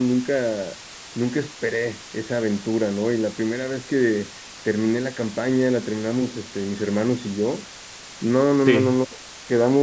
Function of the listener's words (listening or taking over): listening